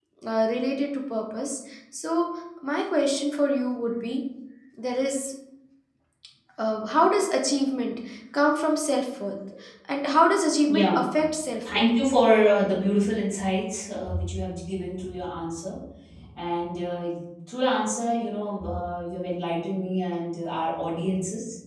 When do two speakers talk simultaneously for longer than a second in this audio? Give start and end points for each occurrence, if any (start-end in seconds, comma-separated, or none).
none